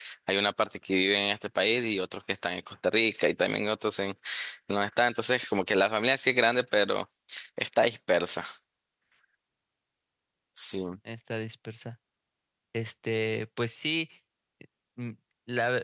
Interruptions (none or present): none